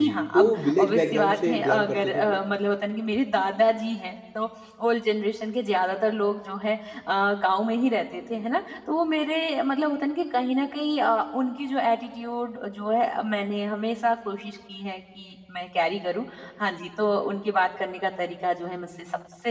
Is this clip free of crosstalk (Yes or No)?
No